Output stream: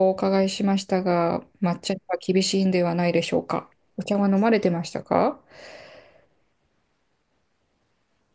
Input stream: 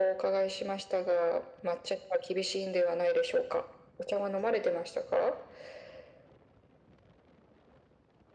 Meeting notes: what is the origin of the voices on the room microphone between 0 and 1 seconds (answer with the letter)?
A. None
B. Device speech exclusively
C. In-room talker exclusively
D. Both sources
B